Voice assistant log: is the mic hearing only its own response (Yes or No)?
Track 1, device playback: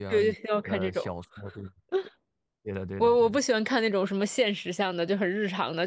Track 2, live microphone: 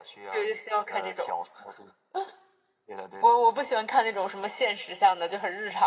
Yes